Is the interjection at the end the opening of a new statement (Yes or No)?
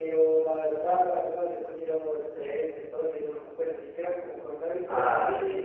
Yes